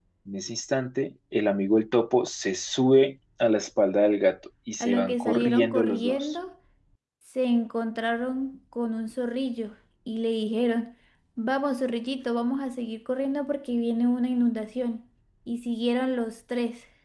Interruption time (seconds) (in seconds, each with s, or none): 4.8 s